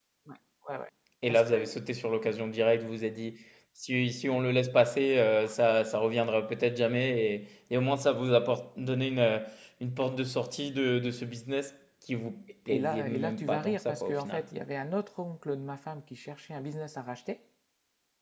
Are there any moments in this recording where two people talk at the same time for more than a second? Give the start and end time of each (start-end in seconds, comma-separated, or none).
12.7-14.4